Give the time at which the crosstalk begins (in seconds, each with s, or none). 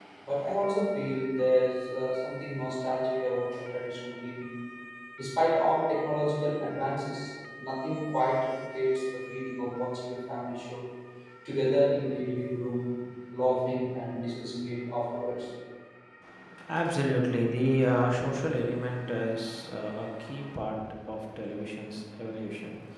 none